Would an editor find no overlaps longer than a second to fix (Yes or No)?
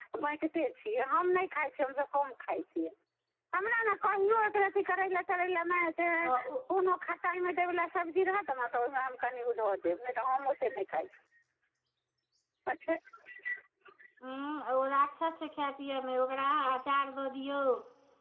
Yes